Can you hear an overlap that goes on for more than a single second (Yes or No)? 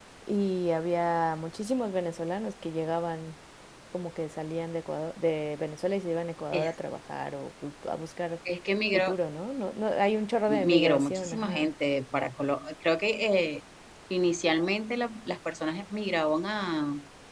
Yes